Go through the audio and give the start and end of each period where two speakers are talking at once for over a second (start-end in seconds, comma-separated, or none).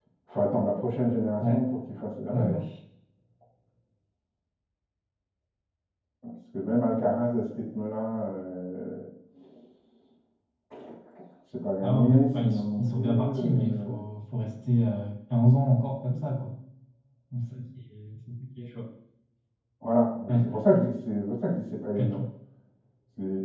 11.8-13.9